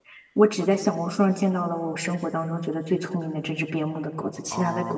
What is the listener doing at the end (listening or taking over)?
taking over